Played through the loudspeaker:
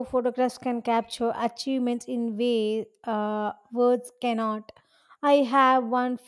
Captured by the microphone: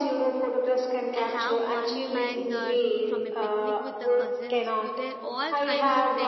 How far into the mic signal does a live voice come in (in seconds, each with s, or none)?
1.1 s